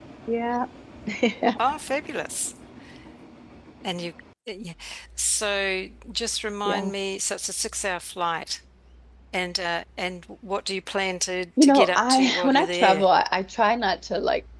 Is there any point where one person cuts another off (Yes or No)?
Yes